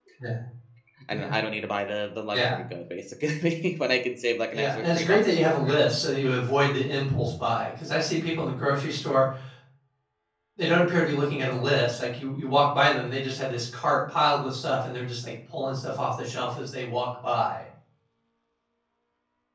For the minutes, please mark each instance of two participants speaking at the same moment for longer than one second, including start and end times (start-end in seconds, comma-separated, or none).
4.5-5.7